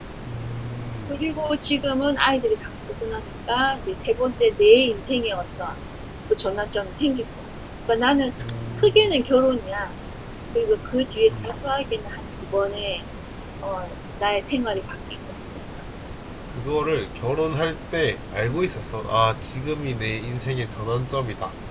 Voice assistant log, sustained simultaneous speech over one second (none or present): none